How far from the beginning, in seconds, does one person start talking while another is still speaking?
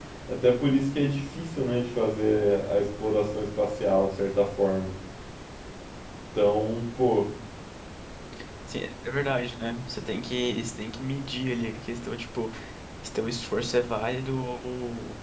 none

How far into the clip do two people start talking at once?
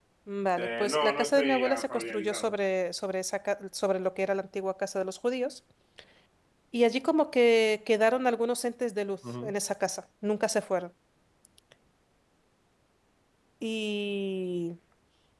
1 s

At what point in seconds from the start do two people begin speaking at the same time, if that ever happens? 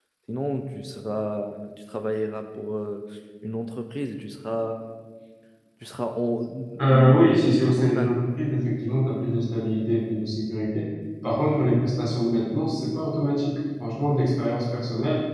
7 s

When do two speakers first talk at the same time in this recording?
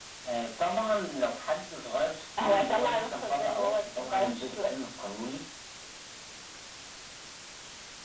2 s

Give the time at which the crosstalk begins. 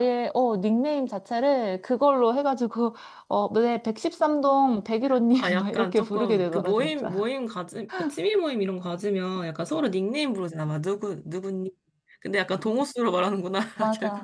5 s

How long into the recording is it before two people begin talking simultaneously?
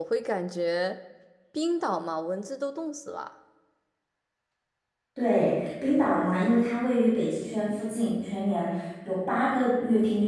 none

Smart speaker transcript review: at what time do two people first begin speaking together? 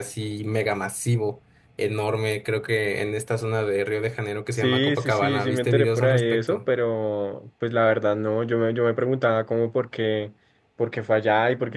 5 s

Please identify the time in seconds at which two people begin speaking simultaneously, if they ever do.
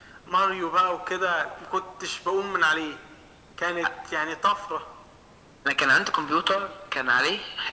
none

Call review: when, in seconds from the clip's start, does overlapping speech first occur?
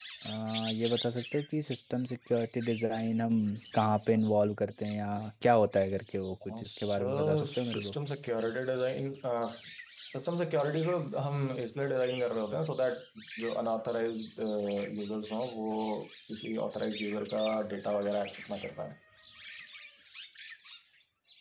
6 s

